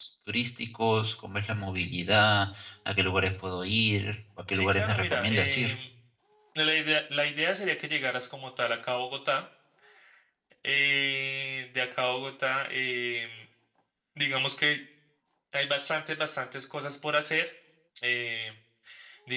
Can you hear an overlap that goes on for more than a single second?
Yes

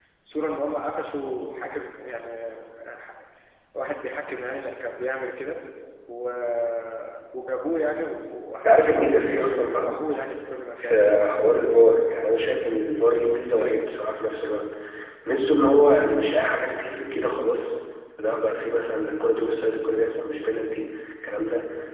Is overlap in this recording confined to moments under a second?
No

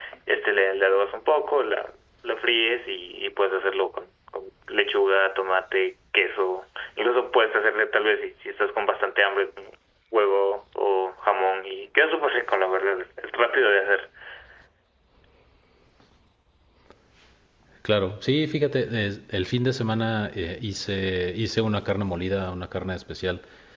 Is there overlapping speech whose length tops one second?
No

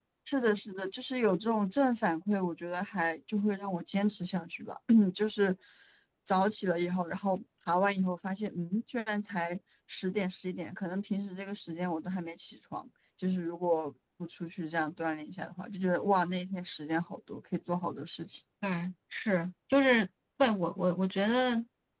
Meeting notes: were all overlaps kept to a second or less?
Yes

